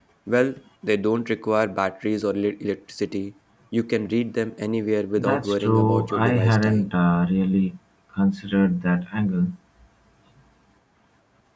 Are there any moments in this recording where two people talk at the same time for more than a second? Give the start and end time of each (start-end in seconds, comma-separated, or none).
5.2-6.9